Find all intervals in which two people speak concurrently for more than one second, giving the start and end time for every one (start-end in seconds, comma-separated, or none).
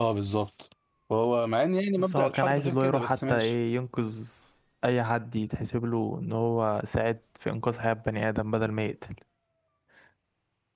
2.0-3.5